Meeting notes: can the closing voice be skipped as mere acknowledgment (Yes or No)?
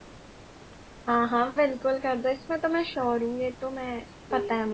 No